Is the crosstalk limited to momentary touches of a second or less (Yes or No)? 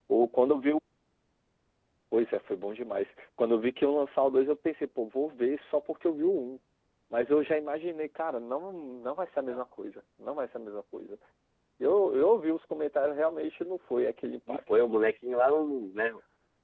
Yes